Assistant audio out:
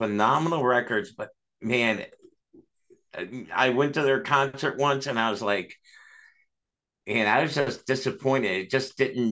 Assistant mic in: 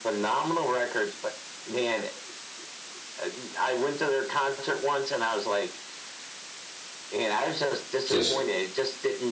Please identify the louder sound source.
user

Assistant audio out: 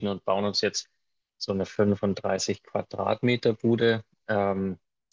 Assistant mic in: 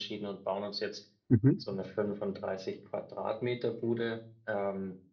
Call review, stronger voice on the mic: user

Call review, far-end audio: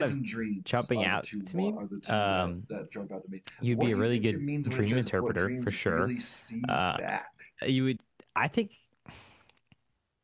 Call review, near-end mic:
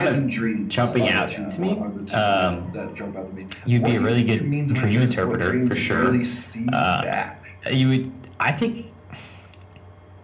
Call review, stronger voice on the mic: echo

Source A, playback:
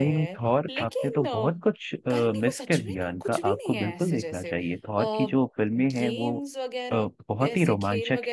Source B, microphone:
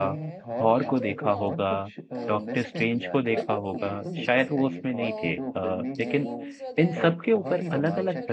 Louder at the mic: user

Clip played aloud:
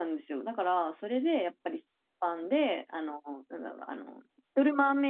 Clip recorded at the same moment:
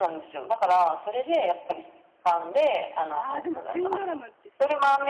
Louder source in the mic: echo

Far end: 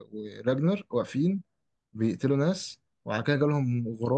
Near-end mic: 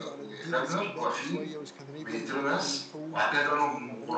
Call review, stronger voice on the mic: echo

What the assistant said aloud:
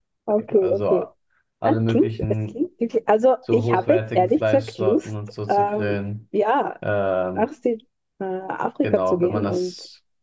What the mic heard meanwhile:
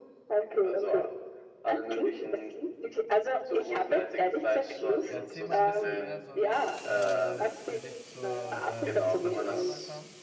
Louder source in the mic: echo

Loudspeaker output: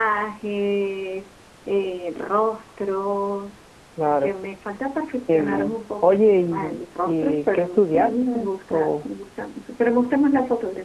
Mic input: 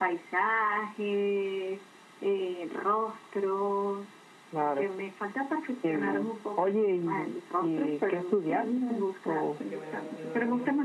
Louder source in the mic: echo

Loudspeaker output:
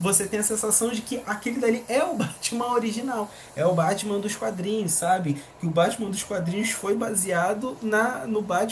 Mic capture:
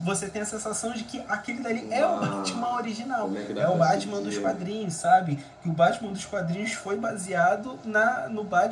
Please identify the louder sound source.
echo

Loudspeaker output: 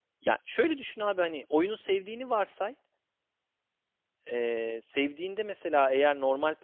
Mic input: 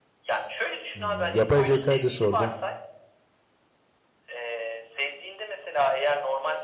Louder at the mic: user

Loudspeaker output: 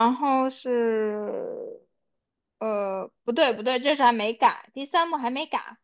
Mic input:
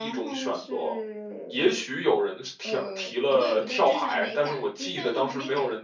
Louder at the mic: user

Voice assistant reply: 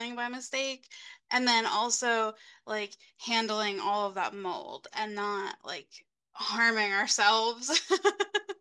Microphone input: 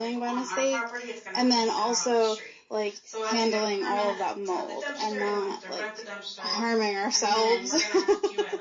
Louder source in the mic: echo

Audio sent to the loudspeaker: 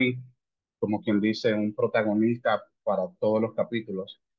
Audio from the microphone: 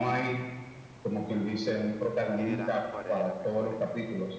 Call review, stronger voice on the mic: echo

